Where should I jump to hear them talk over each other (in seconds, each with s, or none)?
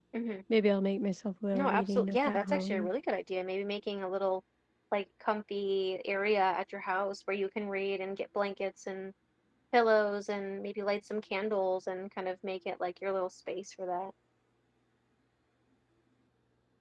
1.5 s